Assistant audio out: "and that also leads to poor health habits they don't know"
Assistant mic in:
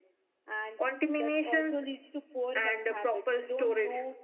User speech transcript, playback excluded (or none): contaminations and uh, proper storage